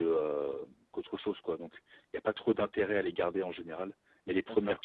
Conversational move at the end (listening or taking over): listening